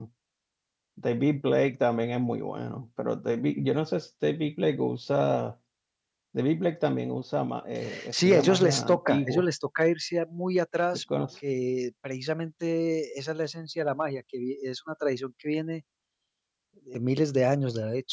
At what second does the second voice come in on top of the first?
8.1 s

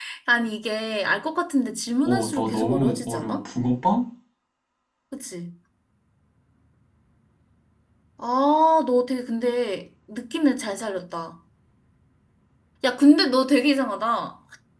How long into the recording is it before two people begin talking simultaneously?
2.0 s

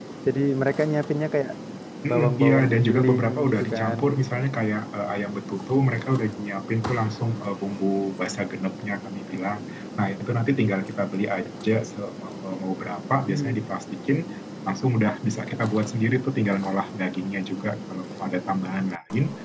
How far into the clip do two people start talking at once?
2.1 s

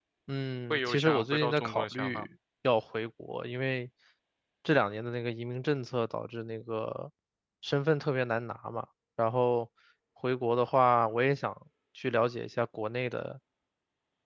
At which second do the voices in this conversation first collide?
0.7 s

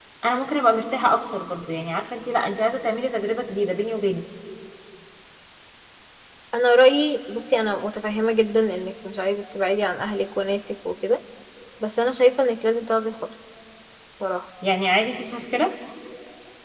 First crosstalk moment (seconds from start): none

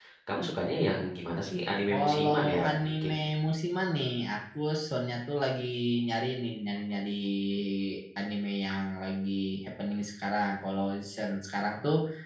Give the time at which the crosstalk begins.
1.9 s

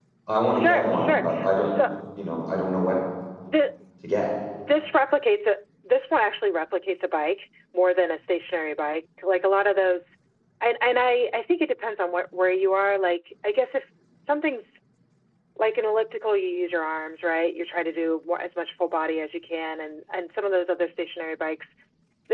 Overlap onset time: 0.5 s

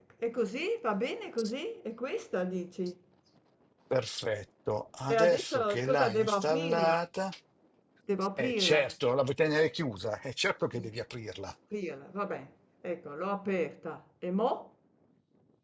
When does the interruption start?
5.1 s

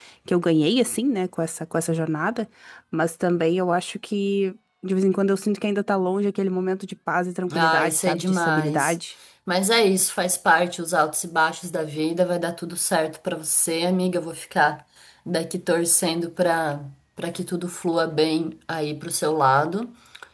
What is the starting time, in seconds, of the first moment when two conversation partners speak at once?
7.5 s

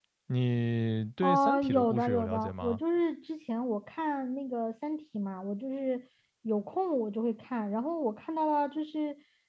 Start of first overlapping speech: 1.2 s

